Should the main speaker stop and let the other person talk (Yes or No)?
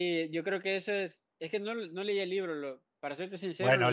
Yes